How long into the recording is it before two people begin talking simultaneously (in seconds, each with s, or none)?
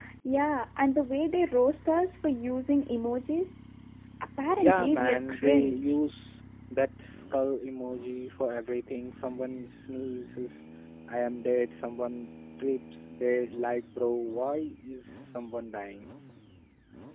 4.6 s